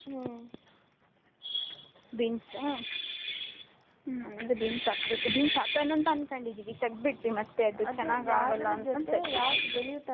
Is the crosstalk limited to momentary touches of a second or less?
No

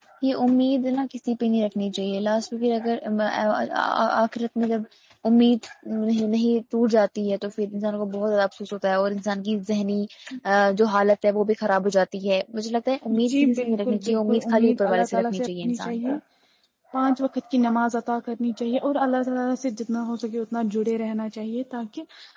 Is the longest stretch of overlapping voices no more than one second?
No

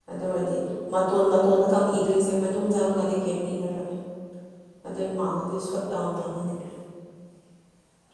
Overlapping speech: No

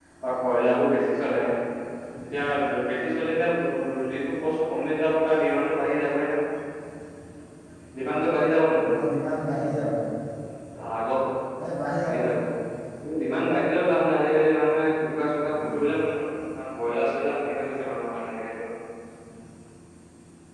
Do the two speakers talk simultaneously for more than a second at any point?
No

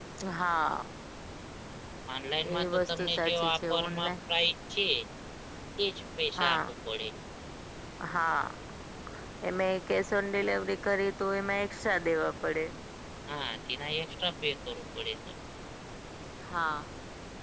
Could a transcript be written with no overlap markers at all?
No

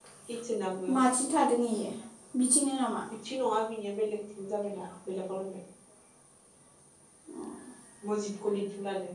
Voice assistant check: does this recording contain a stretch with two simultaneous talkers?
No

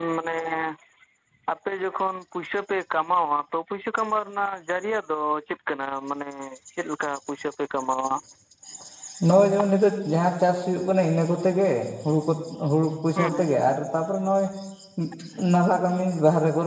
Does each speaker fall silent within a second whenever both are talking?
Yes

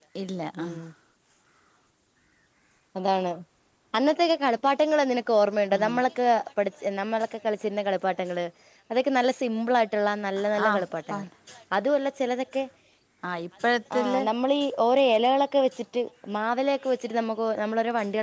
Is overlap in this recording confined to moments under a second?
Yes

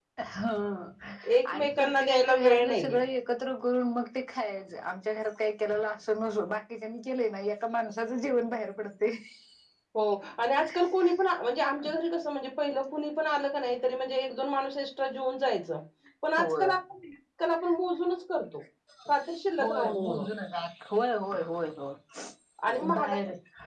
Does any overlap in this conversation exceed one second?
Yes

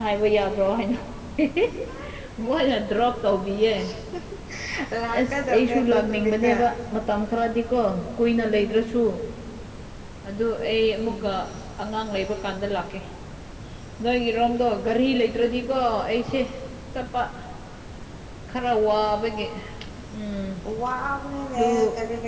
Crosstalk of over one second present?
Yes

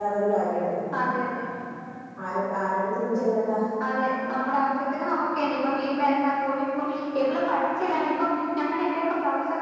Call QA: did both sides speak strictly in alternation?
Yes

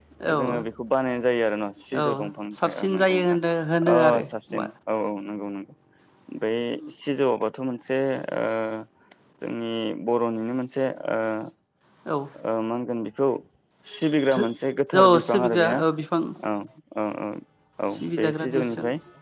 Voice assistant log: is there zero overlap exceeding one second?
No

